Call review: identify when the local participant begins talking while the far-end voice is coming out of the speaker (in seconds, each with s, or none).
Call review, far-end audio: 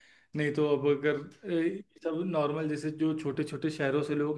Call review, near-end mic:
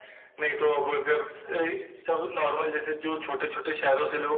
none